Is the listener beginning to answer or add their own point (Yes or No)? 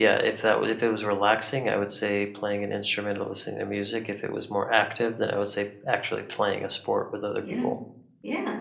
Yes